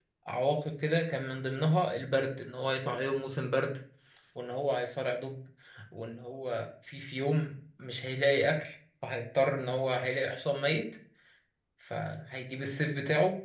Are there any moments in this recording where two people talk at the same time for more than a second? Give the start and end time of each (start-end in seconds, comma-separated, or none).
none